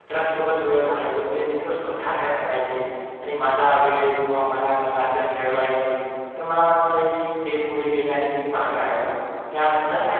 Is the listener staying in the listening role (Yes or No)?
Yes